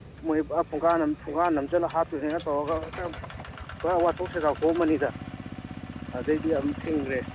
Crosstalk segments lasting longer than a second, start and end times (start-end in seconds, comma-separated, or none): none